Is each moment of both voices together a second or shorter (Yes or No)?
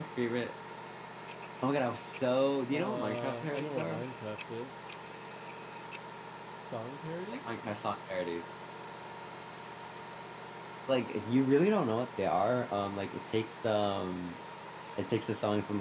No